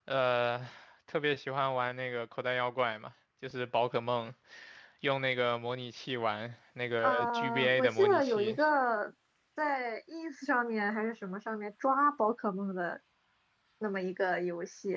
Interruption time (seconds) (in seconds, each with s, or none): 7.0 s